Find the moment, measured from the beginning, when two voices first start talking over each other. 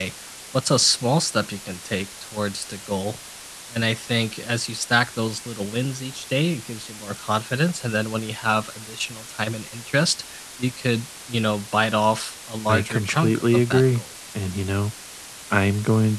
12.7 s

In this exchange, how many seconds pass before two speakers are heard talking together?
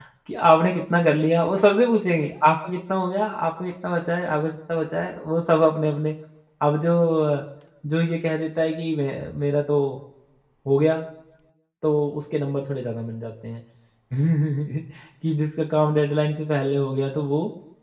none

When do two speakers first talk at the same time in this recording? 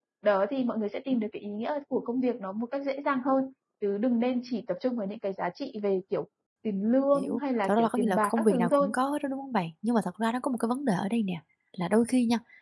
7.1 s

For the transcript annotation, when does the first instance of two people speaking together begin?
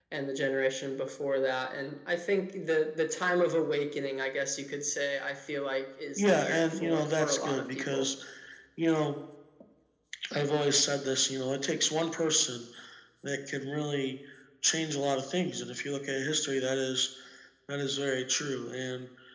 6.2 s

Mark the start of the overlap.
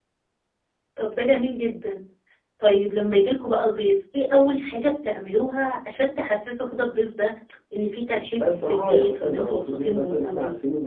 8.3 s

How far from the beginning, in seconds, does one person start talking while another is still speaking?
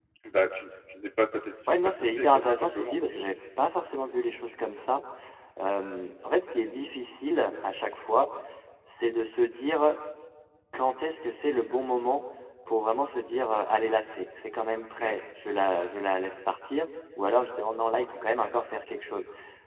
1.7 s

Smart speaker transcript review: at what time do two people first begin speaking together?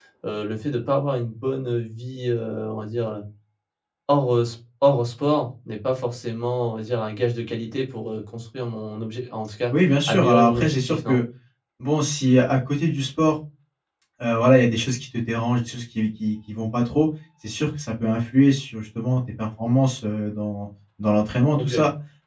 9.7 s

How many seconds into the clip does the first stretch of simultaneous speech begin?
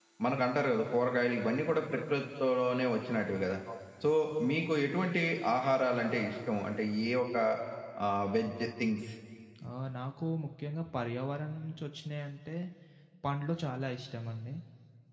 none

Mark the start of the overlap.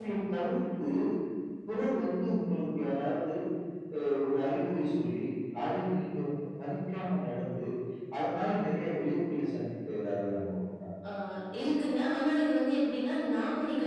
none

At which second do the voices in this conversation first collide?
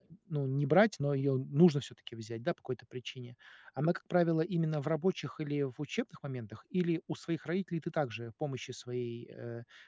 none

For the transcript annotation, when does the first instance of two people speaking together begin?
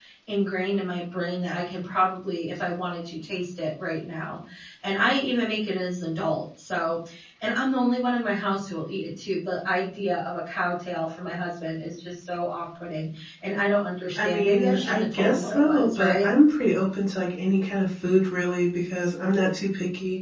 14.2 s

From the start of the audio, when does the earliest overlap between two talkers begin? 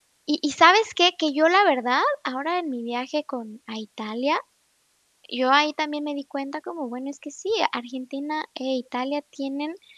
none

